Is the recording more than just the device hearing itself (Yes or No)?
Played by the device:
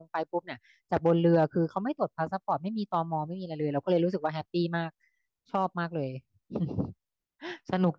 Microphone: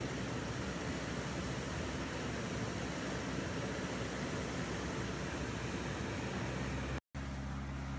No